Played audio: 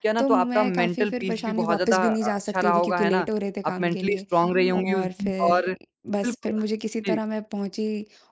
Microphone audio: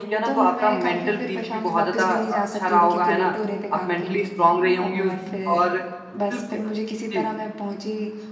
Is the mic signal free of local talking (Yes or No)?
Yes